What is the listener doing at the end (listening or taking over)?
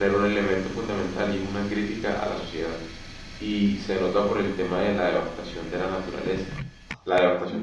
listening